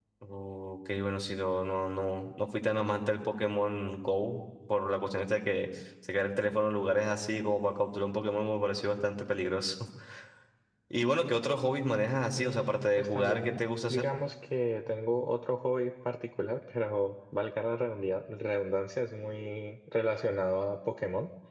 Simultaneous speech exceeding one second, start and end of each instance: 12.4-14.1

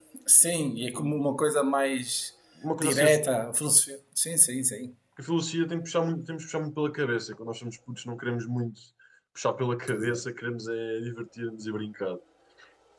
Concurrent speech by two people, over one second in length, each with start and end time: none

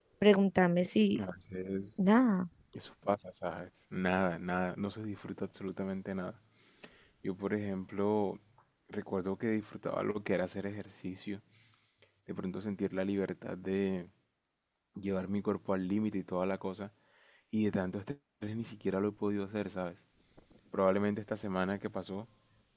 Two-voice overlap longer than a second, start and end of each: none

